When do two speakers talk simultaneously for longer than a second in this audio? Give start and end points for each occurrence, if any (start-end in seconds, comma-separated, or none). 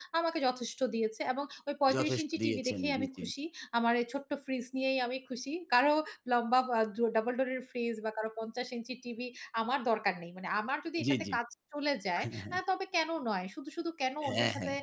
1.9-3.2